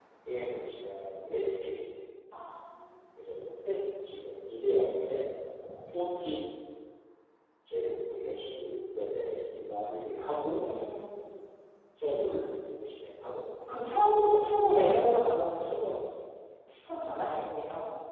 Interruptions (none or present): none